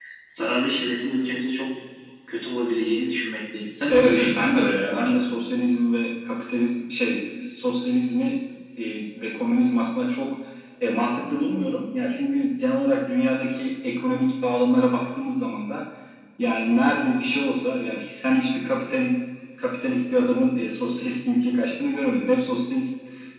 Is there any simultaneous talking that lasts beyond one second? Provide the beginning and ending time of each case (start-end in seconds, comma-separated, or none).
3.9-5.2